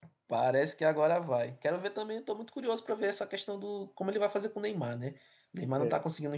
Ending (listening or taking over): listening